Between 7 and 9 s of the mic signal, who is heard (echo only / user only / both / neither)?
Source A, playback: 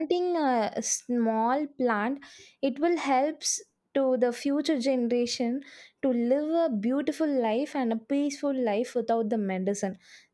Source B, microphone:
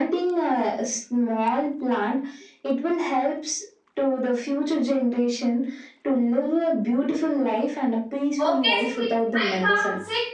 both